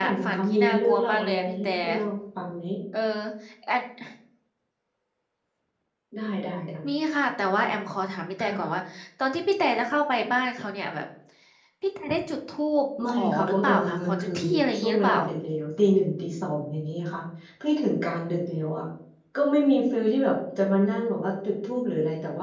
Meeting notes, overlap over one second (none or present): present